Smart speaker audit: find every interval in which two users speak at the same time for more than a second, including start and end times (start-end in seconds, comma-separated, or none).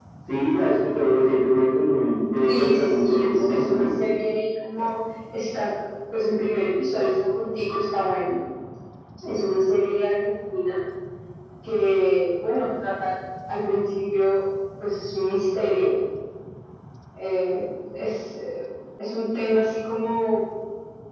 2.4-3.9